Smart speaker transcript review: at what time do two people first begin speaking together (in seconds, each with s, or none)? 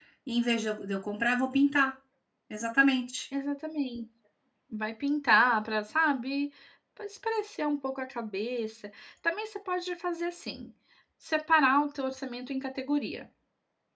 none